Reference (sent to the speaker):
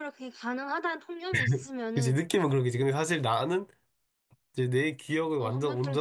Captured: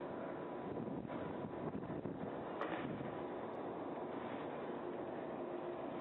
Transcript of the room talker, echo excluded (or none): none